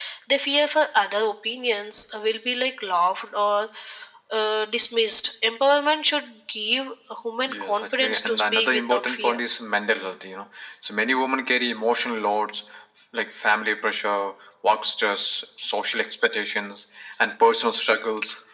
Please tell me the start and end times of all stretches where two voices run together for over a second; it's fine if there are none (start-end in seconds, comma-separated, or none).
7.5-9.4